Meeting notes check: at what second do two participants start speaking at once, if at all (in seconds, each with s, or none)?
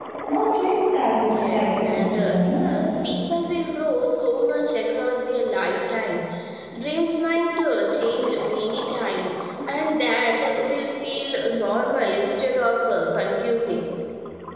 1.2 s